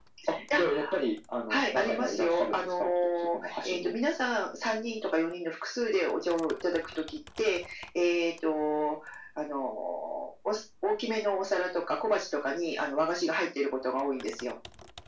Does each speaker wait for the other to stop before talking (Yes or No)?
No